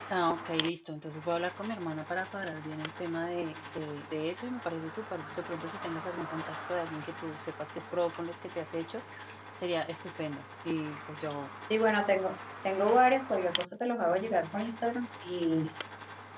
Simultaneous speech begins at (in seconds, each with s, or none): none